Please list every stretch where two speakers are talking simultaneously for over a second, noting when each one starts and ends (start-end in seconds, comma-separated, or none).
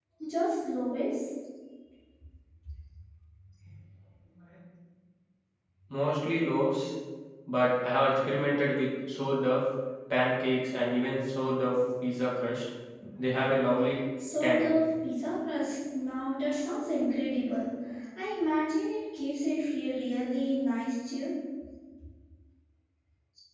none